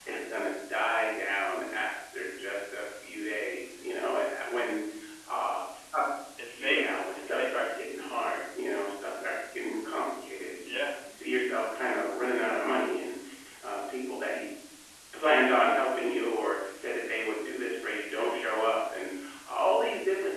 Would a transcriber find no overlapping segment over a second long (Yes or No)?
No